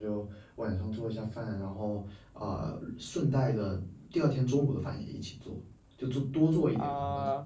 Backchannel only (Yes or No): No